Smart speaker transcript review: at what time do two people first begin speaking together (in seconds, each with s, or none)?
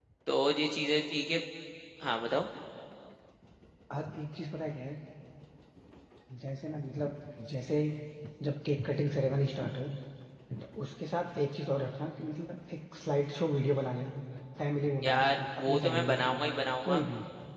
15.0 s